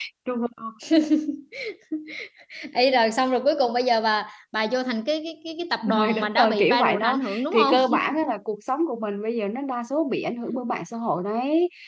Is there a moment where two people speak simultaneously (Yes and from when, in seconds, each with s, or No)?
Yes, from 5.8 s